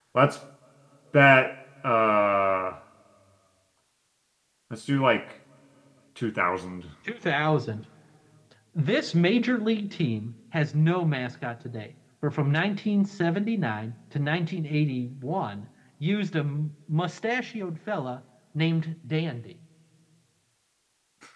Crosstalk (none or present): none